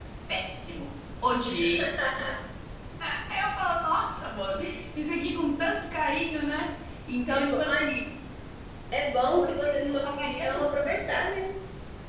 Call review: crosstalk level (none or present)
present